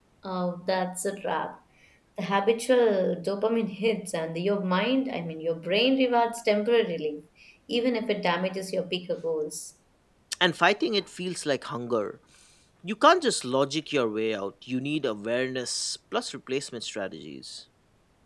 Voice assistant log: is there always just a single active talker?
Yes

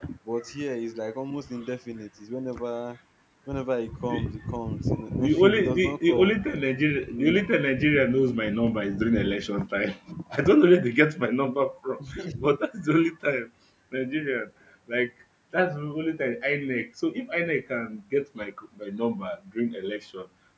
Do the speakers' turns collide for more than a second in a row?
Yes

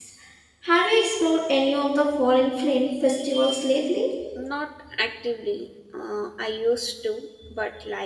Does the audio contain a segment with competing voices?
No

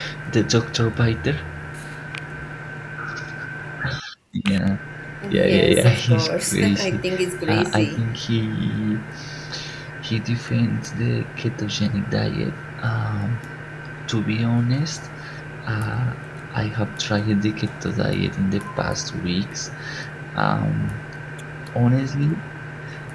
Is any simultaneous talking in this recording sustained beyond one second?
Yes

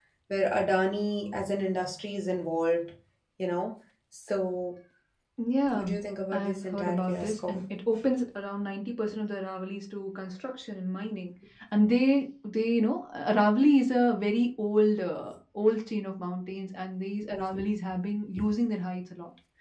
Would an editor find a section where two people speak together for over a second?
Yes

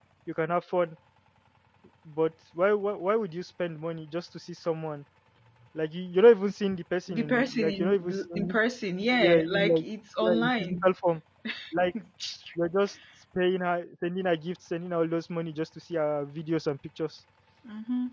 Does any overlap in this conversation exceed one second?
Yes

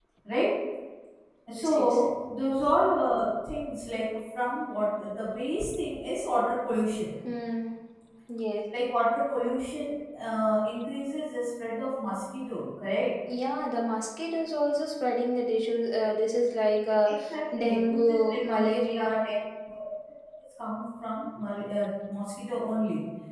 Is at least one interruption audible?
Yes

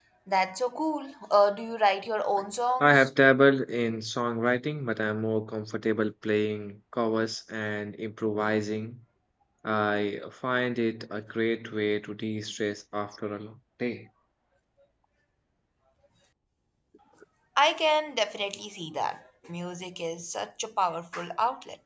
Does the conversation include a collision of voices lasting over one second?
No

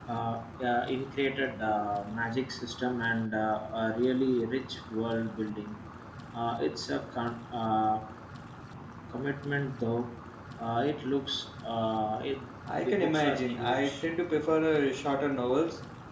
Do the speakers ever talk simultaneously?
Yes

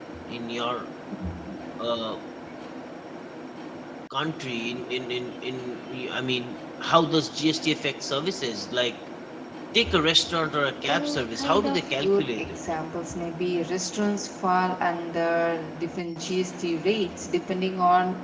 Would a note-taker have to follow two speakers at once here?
Yes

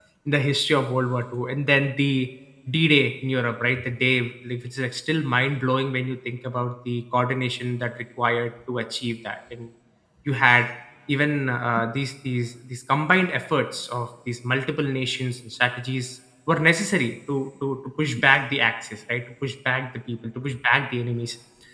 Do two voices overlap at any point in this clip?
No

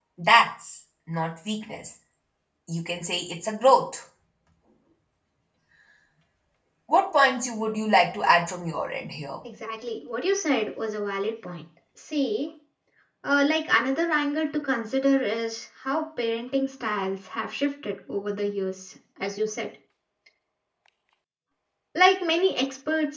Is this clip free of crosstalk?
Yes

